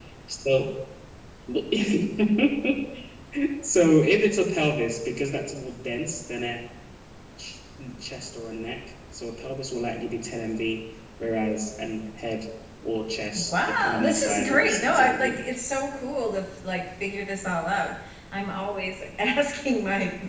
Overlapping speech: Yes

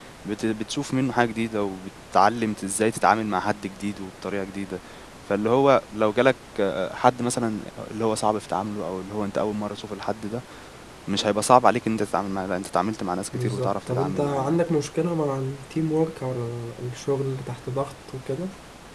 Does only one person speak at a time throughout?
No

